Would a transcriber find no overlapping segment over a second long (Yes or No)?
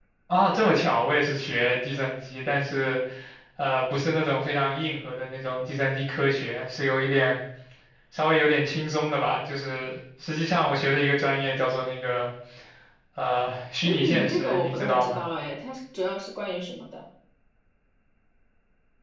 No